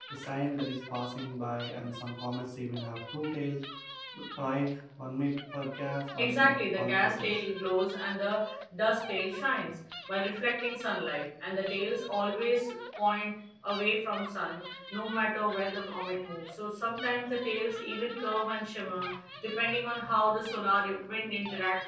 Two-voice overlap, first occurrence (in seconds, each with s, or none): 6.2 s